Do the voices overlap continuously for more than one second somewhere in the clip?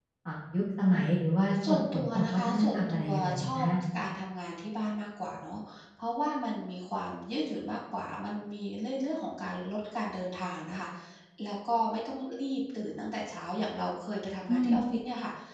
Yes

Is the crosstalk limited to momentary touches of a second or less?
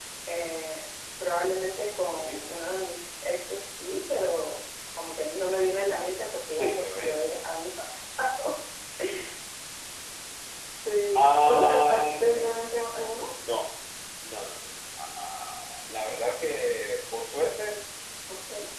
No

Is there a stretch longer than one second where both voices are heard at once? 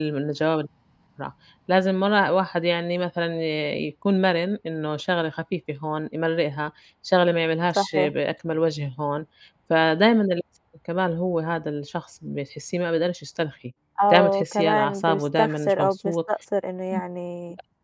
Yes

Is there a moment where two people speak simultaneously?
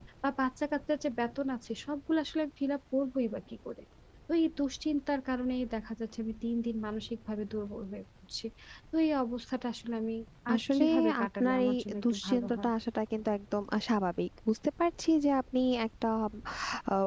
Yes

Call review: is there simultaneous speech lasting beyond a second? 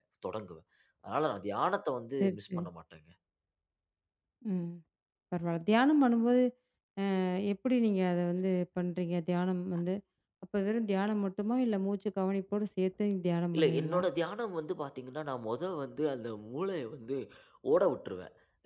No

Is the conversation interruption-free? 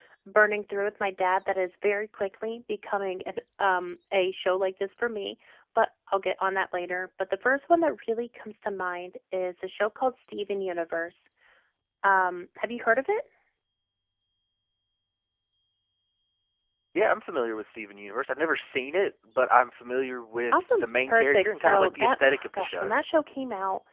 No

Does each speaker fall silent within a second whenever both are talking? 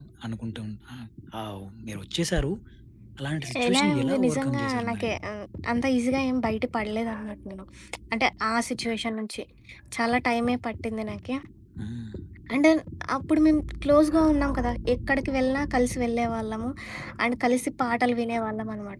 No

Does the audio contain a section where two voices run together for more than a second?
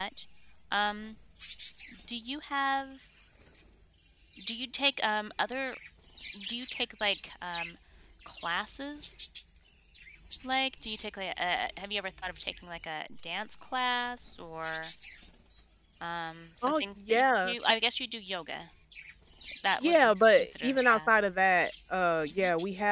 Yes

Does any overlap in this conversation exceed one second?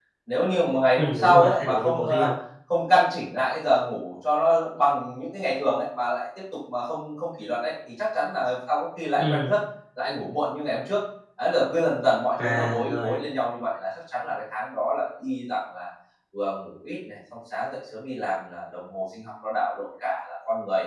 Yes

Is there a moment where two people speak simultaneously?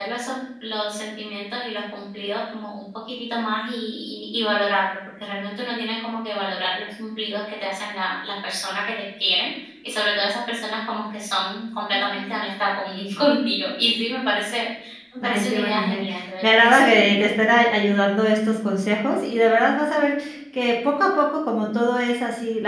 Yes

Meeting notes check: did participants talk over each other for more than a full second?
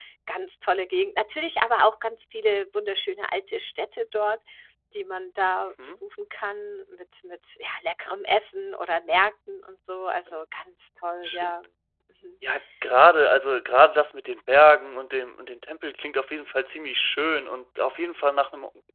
No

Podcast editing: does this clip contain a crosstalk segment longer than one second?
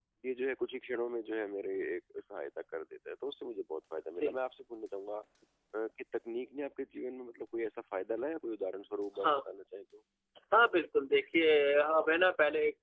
No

